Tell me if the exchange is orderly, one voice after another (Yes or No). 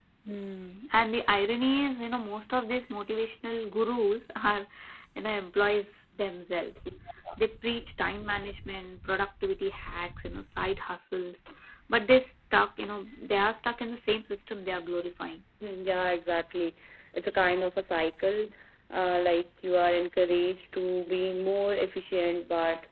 Yes